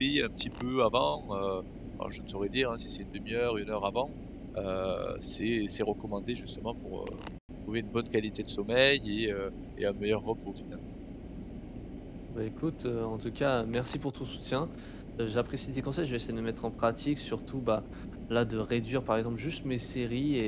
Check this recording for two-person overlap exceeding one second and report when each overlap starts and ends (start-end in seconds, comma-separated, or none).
none